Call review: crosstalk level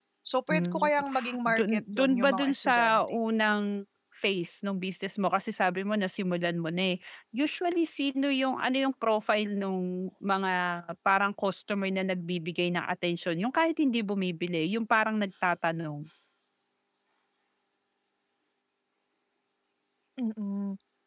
present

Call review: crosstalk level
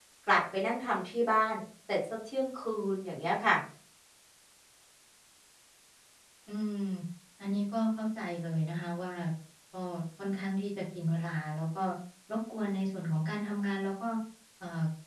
none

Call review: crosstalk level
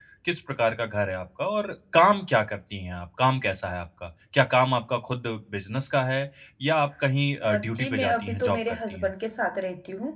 present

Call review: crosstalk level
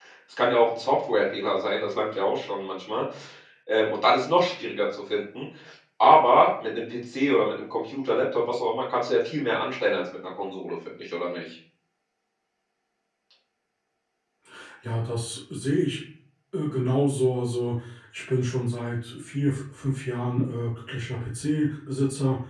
none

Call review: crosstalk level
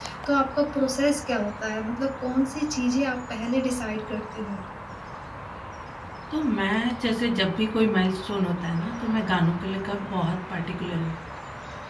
none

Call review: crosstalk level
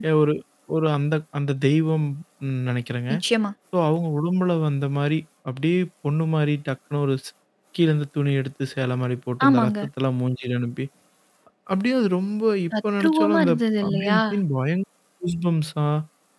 present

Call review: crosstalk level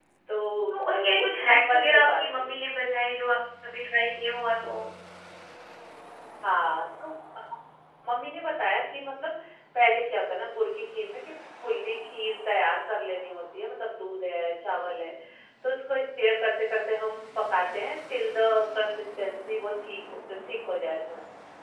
present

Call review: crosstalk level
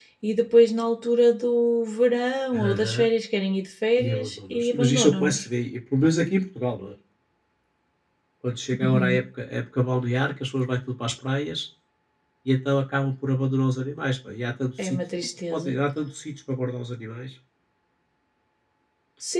present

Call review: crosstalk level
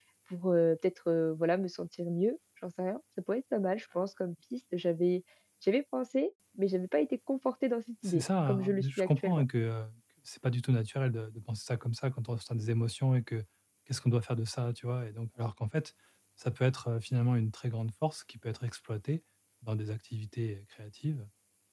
present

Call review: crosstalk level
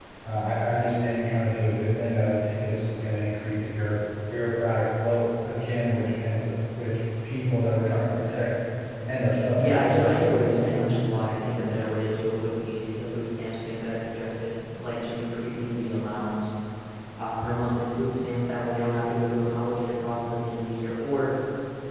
present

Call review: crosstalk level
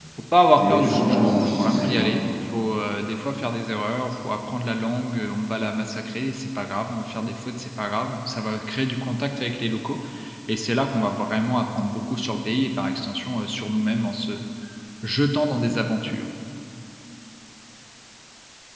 present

